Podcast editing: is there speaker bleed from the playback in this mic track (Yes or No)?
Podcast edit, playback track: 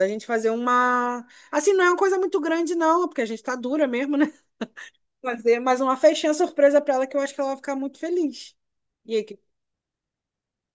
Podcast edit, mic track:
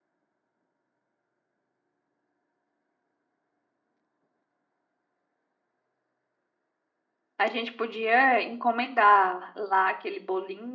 No